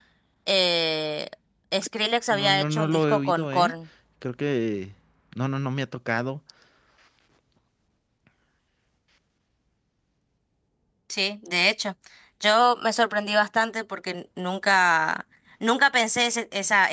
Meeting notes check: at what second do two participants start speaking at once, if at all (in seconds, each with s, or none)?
2.3 s